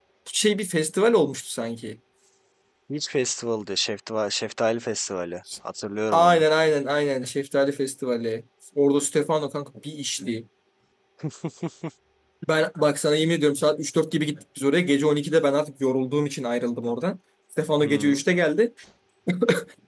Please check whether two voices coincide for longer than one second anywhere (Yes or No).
No